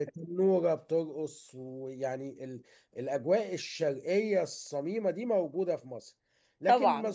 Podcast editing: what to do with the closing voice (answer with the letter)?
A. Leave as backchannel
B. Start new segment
A